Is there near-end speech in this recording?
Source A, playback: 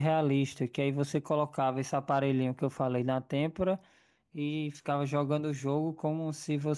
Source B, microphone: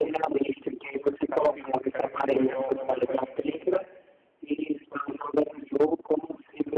Yes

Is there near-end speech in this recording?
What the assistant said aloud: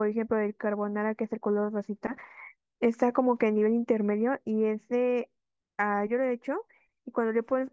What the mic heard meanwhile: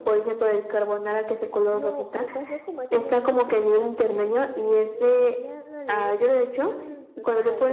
Yes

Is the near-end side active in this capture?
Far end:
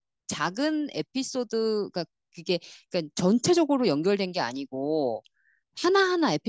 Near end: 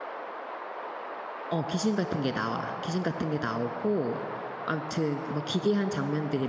Yes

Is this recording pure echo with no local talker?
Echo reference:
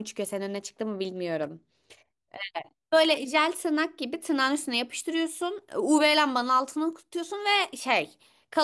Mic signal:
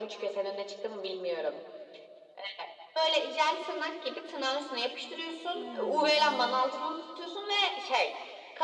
No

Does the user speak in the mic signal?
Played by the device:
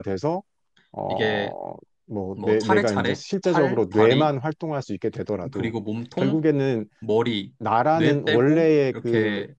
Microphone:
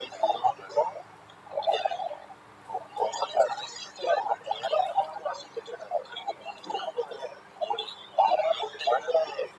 No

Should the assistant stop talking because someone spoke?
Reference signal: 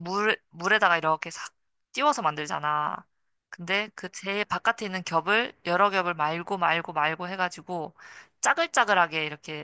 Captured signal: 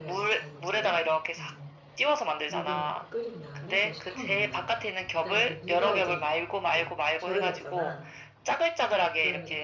Yes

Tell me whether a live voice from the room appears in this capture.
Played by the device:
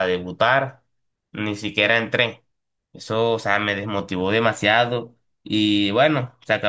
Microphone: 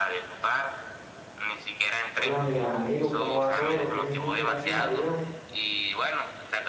Yes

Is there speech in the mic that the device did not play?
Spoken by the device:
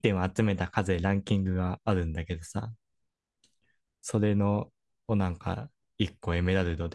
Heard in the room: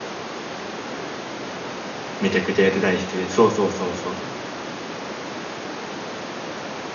Yes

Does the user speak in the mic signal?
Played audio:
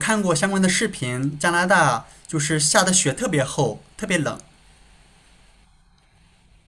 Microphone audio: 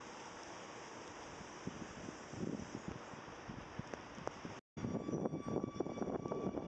No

